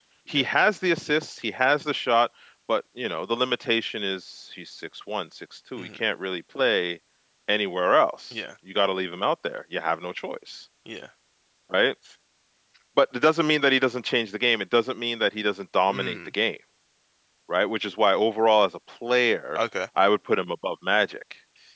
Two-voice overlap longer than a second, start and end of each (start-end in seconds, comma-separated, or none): none